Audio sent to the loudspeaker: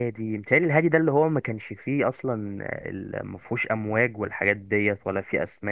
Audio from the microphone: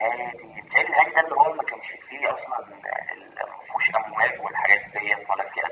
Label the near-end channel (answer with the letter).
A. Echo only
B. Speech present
A